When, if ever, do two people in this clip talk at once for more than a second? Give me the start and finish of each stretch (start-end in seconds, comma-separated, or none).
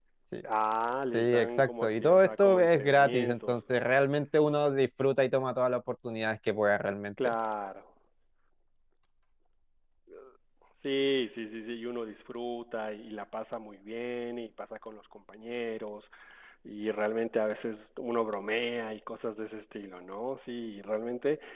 1.1-3.6